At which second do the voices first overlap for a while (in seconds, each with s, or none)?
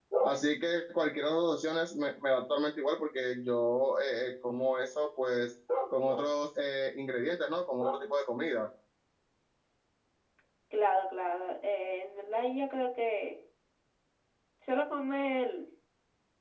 none